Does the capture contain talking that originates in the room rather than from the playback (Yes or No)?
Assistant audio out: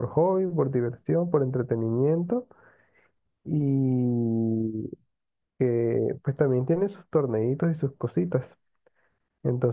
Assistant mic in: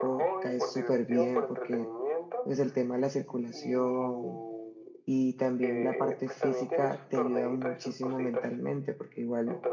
Yes